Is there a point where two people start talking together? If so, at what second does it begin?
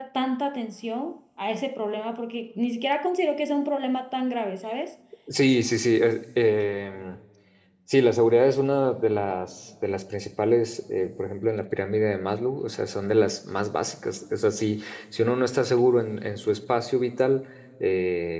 none

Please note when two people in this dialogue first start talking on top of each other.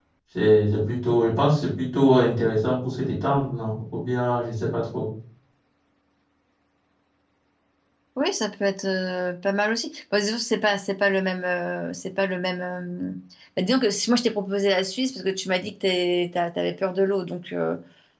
none

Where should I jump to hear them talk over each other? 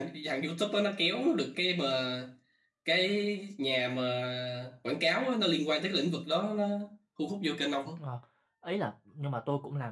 none

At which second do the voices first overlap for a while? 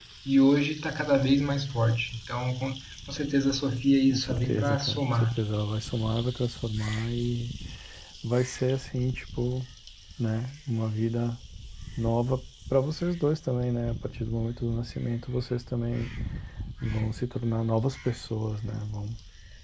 4.1 s

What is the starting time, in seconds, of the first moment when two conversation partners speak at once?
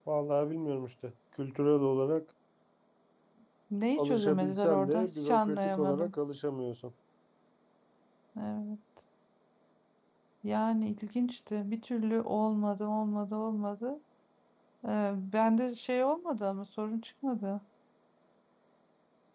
4.0 s

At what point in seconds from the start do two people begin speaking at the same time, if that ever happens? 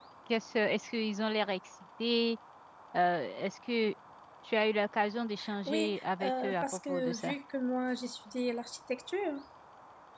5.7 s

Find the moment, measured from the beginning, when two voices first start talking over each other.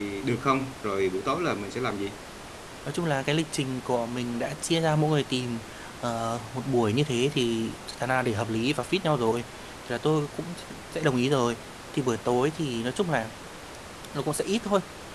none

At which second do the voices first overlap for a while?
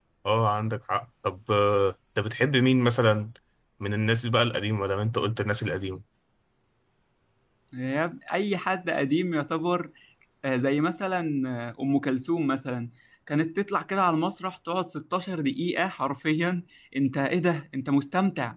none

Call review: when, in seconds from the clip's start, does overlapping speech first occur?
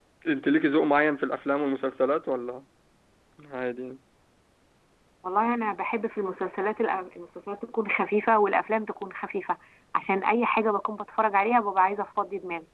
none

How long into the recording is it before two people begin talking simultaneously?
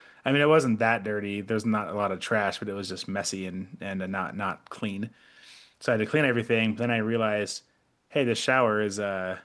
none

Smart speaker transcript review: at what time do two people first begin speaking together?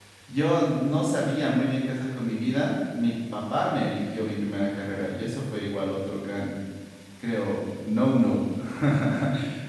none

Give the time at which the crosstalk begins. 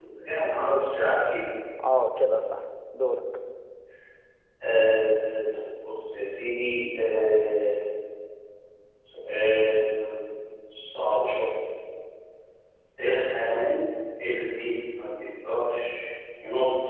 none

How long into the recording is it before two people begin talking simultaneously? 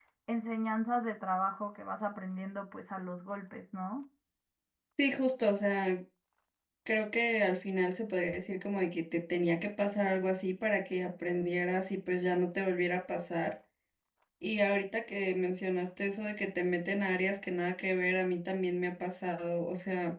none

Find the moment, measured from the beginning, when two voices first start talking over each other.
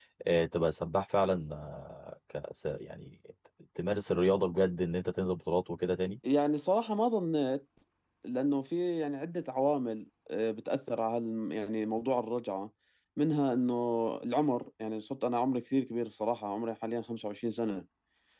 none

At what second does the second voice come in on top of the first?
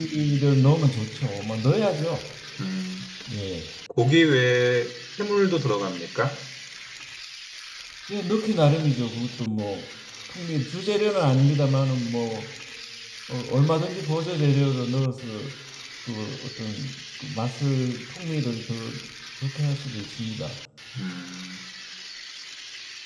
none

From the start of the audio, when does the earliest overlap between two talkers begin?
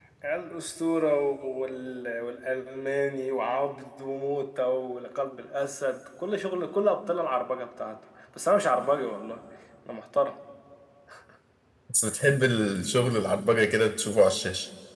none

